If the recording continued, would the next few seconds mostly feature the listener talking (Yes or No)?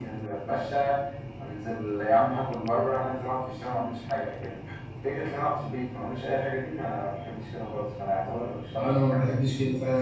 Yes